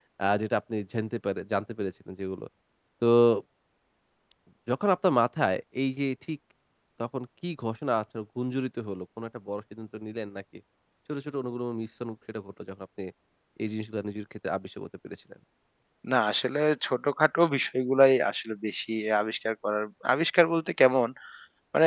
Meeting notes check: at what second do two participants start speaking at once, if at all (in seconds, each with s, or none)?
none